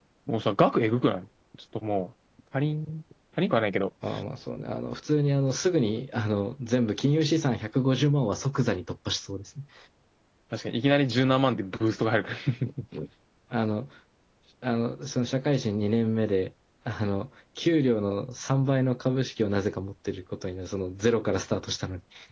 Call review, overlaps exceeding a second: none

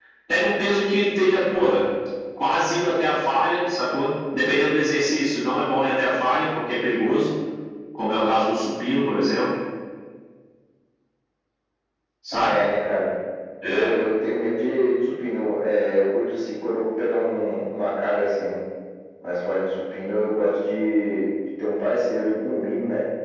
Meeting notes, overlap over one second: none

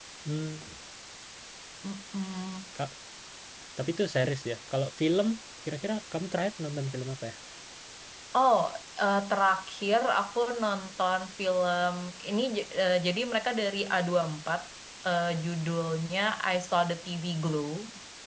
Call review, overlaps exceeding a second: none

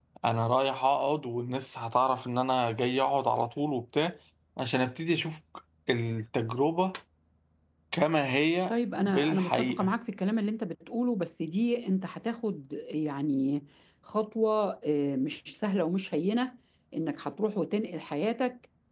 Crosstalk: present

